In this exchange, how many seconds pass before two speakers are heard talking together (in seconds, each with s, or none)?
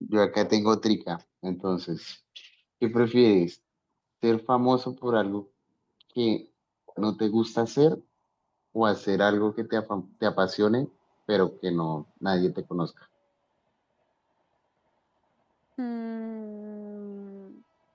none